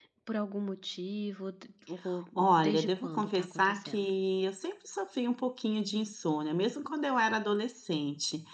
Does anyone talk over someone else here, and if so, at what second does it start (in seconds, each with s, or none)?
2.4 s